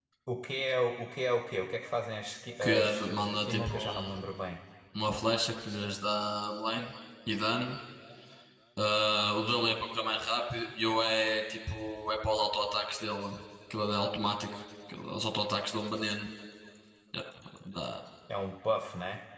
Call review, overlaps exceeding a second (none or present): present